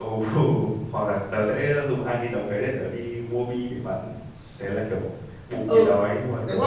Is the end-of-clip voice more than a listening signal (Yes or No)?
Yes